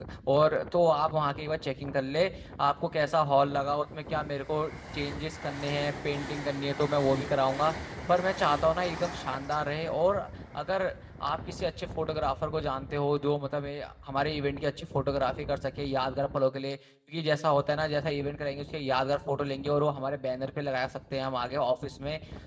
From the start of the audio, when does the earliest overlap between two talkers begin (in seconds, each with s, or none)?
none